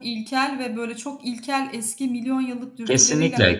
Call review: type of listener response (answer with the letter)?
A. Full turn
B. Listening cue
A